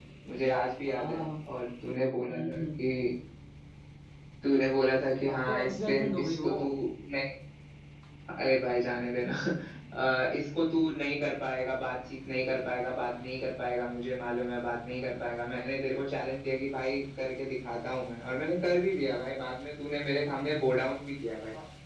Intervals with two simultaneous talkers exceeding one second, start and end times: 5.3-6.5

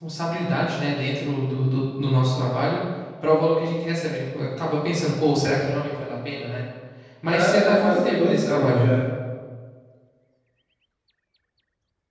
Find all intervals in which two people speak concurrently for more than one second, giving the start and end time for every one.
7.3-8.9

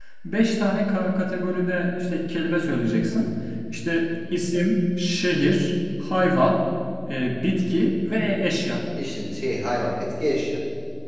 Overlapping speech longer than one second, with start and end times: none

